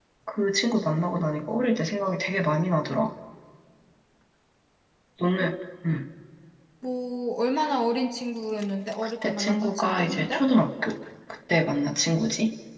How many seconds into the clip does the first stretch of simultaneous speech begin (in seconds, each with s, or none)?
9.0 s